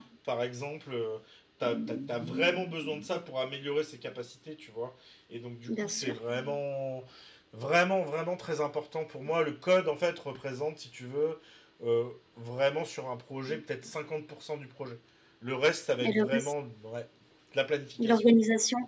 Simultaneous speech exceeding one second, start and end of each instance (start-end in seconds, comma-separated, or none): 1.6-3.0